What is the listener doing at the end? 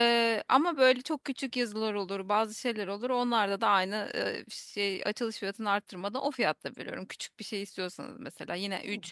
listening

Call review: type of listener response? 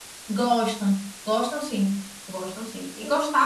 listening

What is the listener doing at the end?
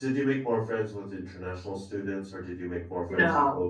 taking over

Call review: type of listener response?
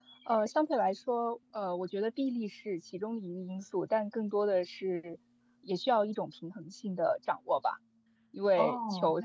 listening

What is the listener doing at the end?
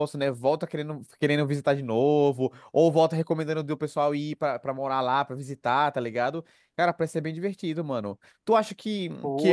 listening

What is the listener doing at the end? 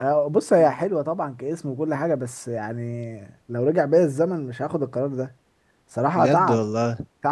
listening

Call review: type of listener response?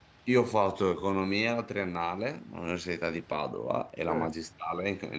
listening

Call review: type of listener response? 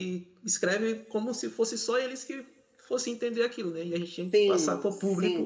taking over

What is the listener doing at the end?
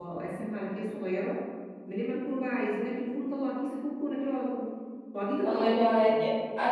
taking over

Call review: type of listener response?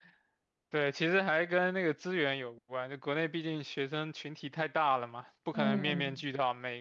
listening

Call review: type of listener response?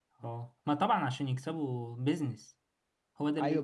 taking over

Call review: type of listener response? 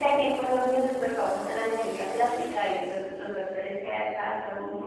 taking over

